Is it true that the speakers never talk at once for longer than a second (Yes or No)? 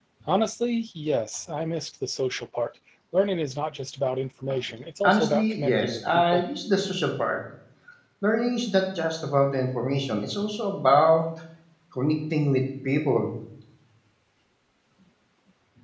No